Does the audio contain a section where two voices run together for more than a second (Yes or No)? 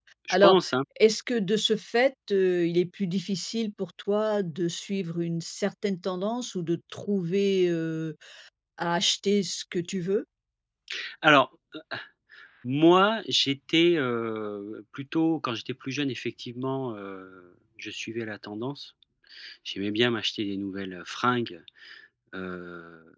No